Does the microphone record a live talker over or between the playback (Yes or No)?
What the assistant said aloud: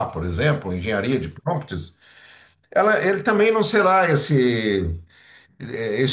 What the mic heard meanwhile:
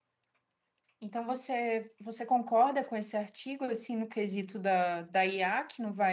Yes